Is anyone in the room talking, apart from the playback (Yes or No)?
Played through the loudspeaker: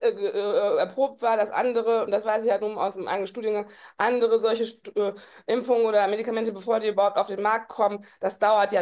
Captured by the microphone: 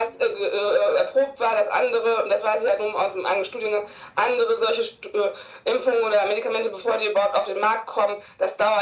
No